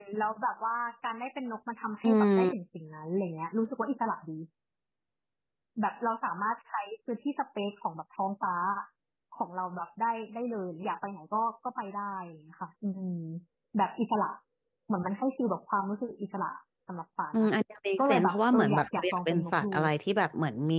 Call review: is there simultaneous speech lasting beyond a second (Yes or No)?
Yes